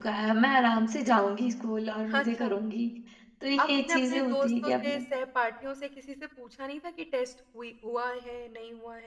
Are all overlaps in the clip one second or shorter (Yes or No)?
No